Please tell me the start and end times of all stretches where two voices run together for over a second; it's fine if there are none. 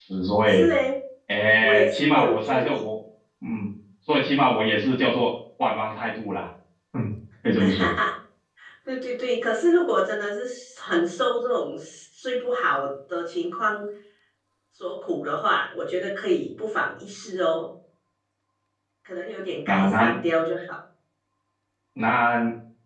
1.6-2.8

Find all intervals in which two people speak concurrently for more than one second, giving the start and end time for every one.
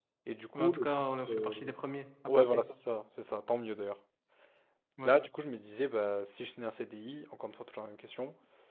0.5-1.7

